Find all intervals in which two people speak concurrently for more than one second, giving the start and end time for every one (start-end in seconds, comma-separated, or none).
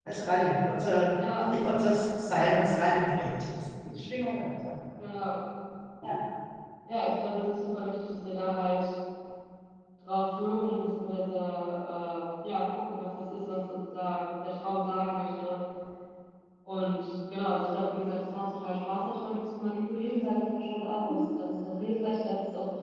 none